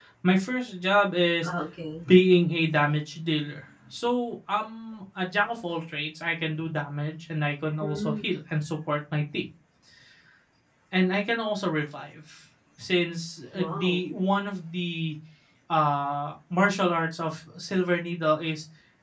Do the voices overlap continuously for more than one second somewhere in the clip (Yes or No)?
No